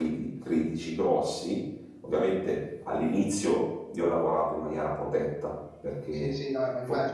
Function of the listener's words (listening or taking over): taking over